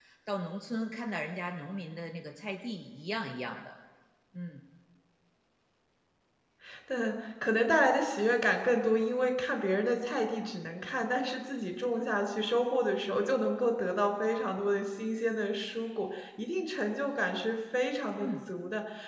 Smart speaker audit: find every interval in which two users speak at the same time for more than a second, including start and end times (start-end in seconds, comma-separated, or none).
none